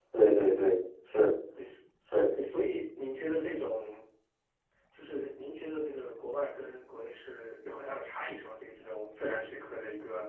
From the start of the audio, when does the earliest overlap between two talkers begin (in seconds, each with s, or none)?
none